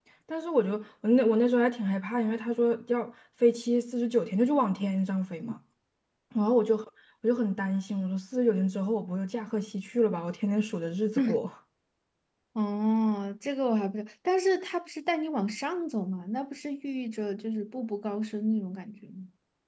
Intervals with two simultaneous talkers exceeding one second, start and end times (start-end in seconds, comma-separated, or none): none